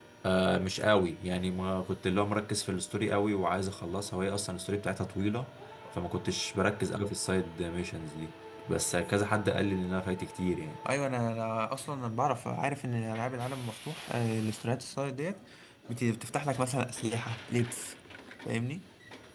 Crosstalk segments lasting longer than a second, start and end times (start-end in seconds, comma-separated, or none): none